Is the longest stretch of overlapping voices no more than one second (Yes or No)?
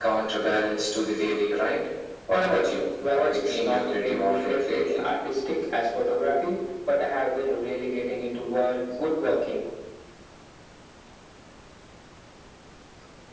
No